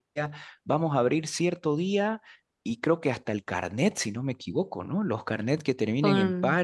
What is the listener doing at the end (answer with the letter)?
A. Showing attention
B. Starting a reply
A